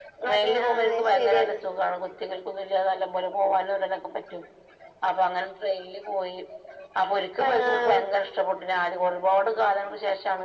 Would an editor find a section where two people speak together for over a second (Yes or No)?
Yes